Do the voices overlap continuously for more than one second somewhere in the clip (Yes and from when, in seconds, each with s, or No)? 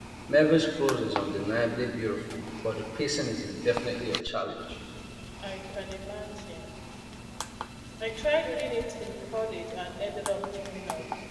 No